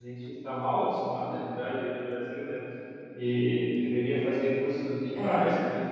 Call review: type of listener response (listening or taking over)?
listening